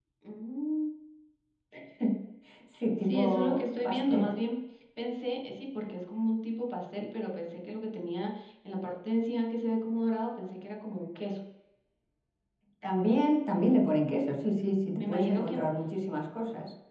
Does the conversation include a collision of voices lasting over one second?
Yes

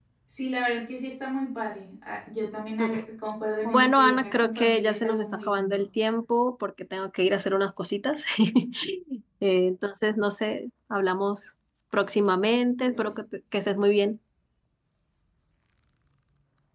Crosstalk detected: Yes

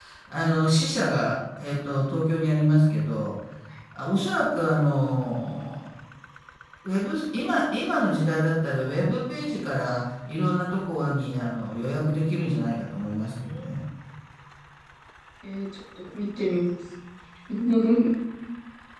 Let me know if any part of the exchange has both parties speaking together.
No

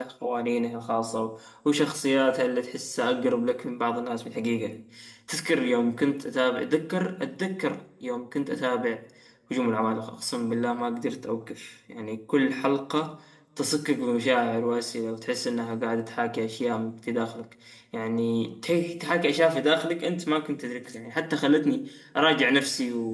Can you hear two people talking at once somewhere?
No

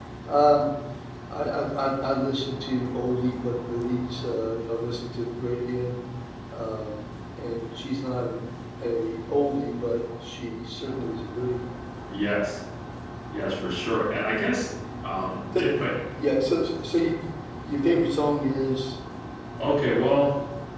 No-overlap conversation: Yes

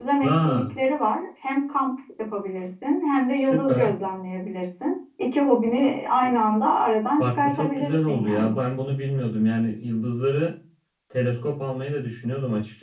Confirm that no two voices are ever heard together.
No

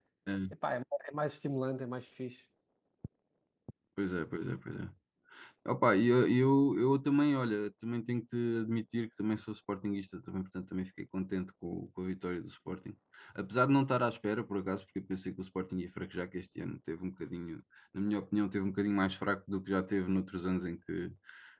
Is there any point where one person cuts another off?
No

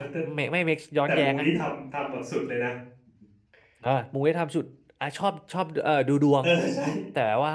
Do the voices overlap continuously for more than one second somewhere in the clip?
No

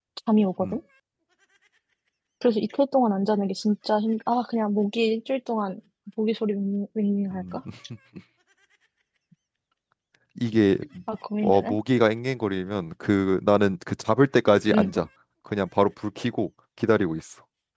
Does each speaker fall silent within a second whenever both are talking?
Yes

